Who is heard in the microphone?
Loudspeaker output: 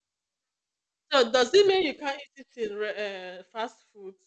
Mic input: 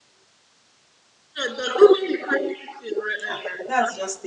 both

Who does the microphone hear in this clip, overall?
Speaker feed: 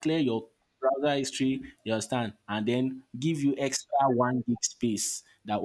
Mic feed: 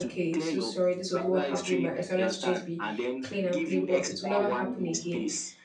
both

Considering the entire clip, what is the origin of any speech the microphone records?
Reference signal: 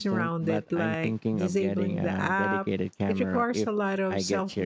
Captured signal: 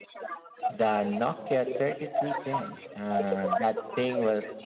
both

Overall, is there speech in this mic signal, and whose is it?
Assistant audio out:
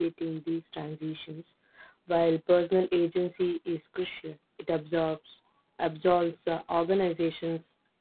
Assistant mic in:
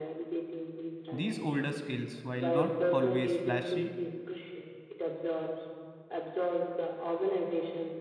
both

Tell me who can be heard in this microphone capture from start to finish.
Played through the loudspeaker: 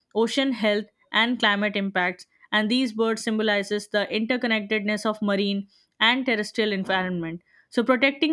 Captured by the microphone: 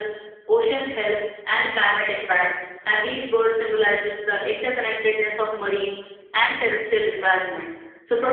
echo only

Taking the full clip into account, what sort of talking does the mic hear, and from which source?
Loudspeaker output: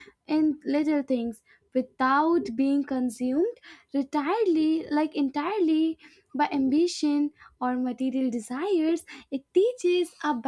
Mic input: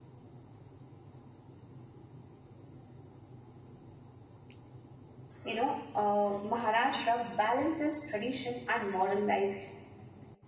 user only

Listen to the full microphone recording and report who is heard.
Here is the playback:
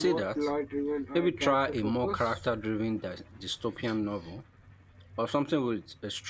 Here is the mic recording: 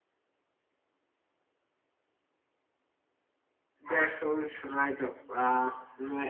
user only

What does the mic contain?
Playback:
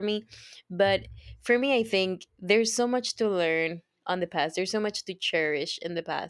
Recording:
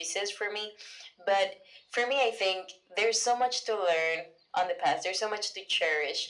echo only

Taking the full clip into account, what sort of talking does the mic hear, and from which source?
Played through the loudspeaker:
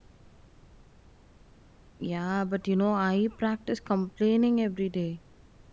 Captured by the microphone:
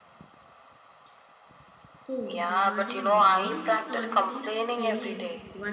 both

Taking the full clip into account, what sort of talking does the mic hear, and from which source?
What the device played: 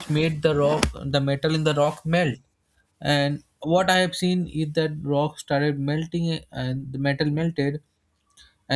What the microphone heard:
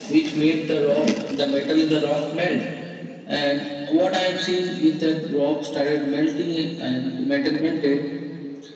echo only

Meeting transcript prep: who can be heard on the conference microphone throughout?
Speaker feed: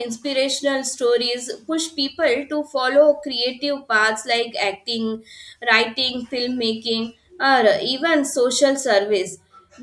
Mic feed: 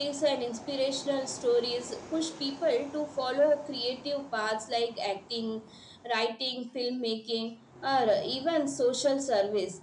echo only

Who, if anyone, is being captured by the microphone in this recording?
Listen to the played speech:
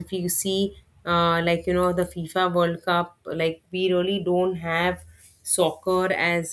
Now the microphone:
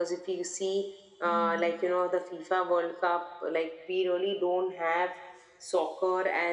both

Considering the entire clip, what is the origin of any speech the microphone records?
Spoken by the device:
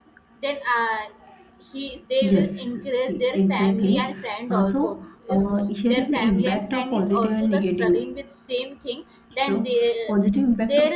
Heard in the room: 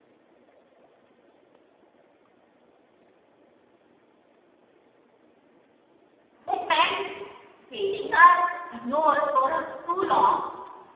user only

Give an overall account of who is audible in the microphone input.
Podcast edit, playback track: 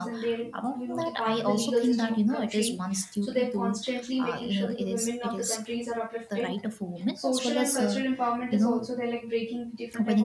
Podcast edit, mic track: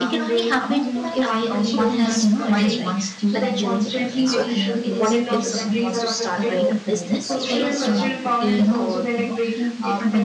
both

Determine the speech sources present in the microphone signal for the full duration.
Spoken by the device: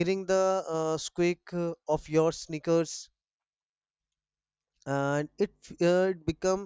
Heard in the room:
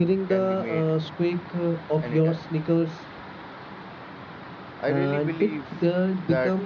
both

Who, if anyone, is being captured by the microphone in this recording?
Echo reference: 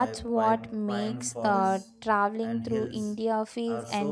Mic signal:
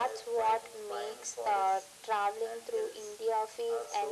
echo only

